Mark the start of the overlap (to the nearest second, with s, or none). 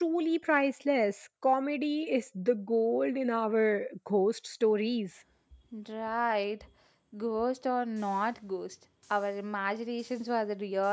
none